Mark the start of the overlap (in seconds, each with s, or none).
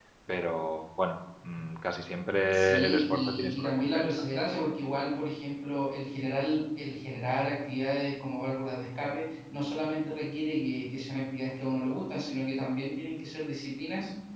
2.5 s